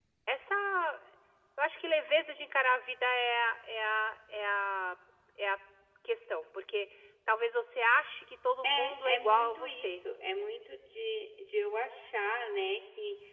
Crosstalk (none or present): present